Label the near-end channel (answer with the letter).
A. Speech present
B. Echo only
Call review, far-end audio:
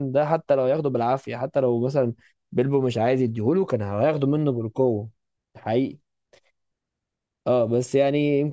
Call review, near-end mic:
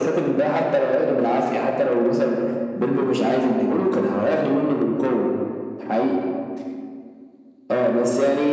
B